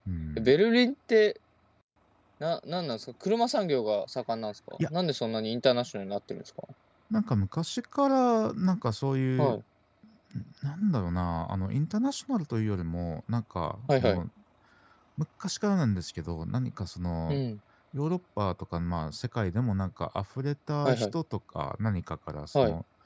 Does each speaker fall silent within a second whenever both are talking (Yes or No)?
Yes